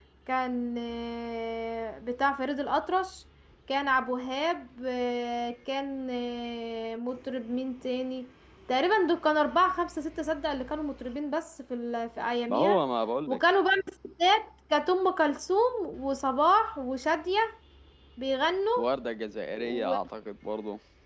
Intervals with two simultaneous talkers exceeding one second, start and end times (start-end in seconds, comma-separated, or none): none